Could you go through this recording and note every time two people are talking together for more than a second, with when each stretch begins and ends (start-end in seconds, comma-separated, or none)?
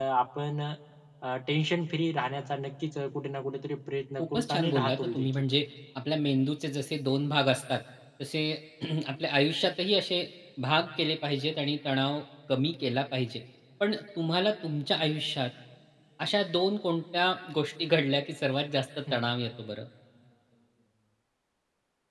4.2-5.4